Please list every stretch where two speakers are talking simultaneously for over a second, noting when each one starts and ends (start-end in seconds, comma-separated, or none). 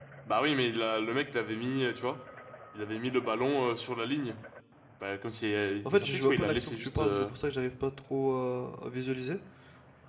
5.8-7.3